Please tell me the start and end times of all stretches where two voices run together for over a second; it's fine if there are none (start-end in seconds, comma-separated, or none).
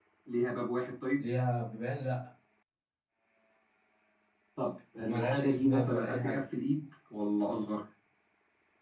5.0-6.4